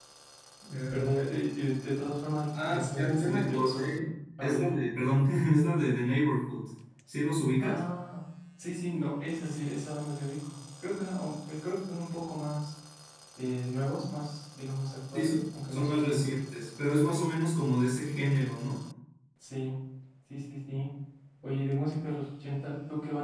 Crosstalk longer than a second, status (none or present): present